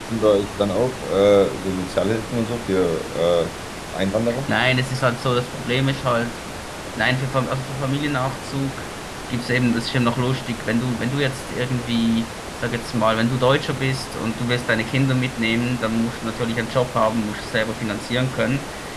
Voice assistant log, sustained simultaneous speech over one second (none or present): none